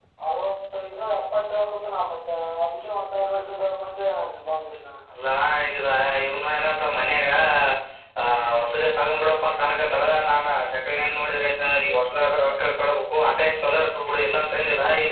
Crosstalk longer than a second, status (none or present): none